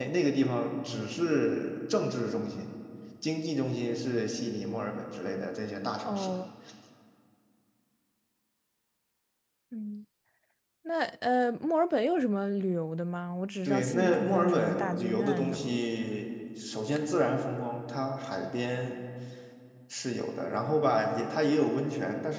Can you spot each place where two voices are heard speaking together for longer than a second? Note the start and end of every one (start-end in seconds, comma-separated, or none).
13.7-15.8